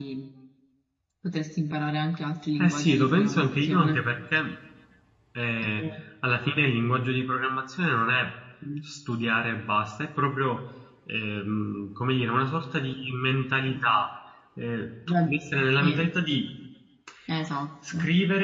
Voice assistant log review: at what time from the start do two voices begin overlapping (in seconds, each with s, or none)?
2.6 s